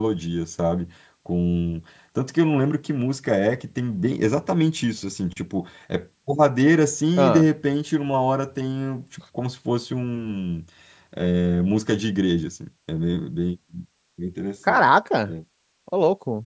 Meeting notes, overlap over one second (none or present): none